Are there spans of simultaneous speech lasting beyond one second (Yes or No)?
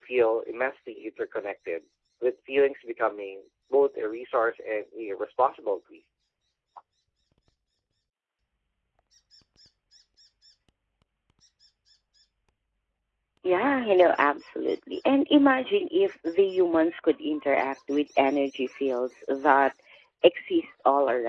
No